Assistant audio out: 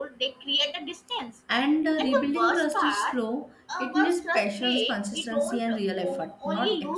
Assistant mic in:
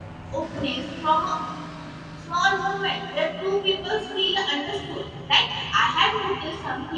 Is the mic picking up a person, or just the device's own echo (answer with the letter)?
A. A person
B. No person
A